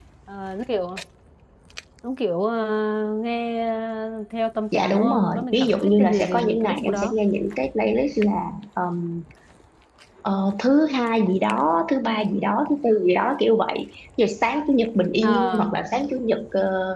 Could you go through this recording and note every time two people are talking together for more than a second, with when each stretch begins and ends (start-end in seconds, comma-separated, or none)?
4.7-7.2